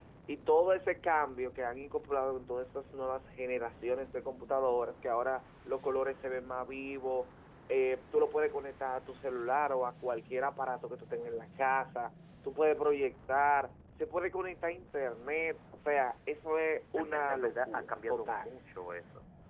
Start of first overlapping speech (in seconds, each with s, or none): 17.0 s